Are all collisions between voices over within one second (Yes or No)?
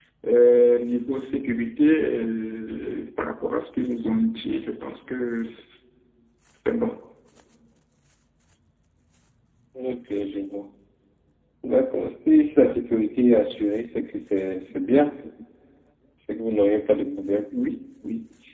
Yes